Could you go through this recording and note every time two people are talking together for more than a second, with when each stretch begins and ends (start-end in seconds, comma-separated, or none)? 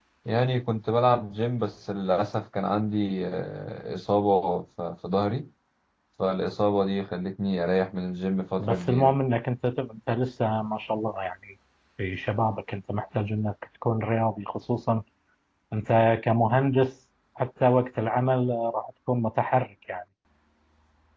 none